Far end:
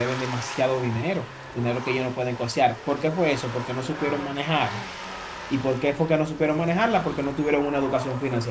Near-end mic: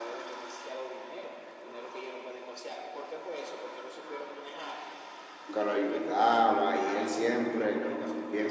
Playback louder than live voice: No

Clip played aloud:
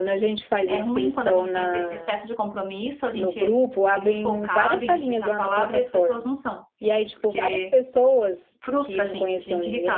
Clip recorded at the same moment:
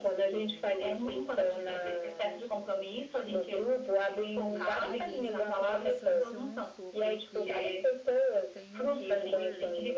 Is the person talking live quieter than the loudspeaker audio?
Yes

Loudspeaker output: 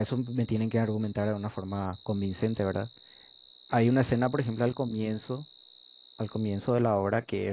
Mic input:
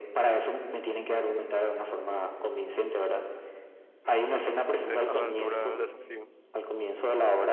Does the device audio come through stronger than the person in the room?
Yes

